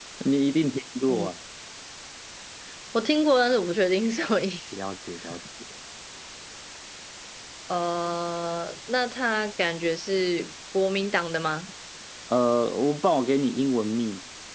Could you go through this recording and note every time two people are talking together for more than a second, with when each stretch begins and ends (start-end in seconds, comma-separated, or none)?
none